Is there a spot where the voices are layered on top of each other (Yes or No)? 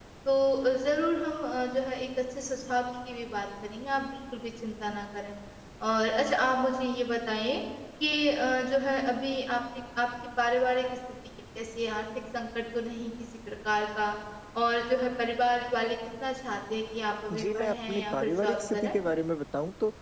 Yes